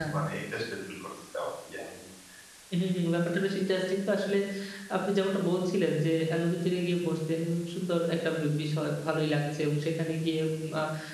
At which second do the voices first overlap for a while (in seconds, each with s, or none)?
none